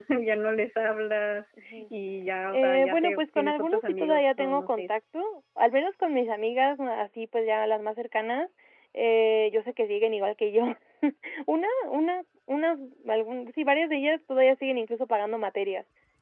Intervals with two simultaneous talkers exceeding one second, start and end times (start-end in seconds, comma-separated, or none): 2.5-4.8